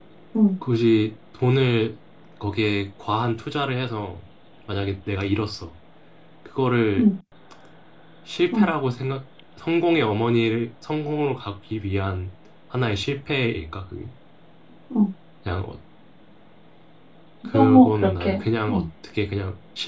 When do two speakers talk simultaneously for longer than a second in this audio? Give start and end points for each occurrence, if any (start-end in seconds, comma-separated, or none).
17.5-18.8